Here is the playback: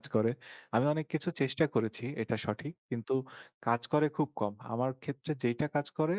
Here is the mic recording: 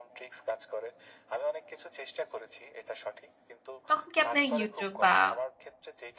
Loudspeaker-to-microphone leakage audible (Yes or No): Yes